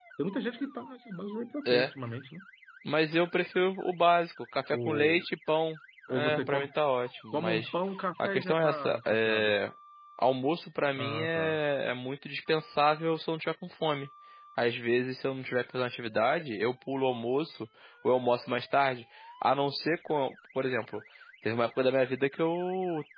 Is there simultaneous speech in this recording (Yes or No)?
Yes